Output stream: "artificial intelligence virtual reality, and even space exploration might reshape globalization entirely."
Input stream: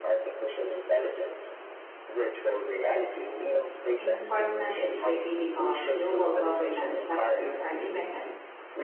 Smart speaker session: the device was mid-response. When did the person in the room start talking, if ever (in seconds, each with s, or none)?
4.0 s